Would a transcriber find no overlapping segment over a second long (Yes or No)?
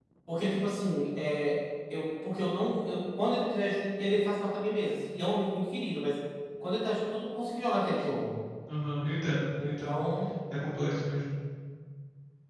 Yes